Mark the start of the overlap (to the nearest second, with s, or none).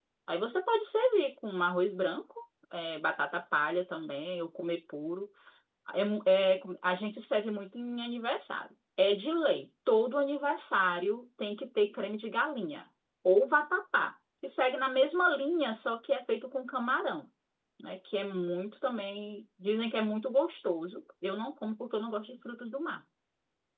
none